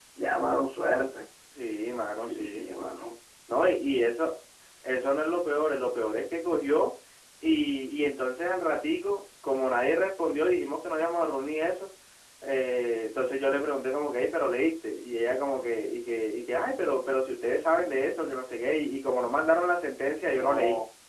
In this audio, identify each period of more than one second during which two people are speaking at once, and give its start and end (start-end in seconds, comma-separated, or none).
none